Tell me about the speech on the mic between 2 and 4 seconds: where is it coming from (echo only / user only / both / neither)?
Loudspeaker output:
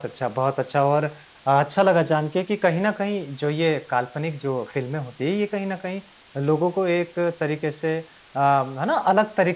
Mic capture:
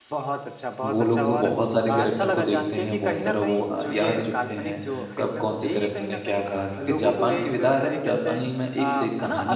both